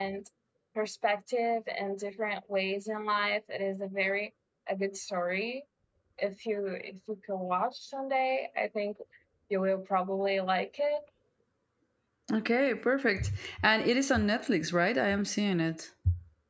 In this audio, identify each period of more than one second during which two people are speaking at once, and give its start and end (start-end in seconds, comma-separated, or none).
none